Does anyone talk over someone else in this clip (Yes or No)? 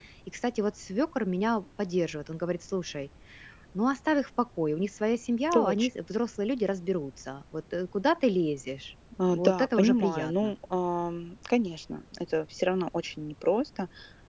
Yes